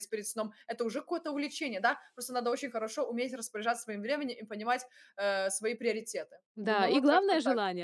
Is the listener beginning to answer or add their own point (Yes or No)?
Yes